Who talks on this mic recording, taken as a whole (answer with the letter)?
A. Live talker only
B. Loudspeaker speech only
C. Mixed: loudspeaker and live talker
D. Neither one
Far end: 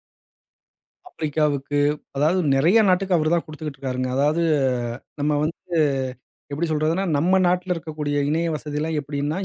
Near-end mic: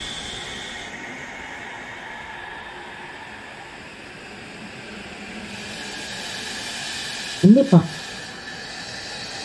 A